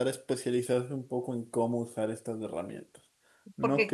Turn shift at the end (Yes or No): Yes